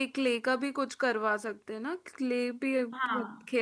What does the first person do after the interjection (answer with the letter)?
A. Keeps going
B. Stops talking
B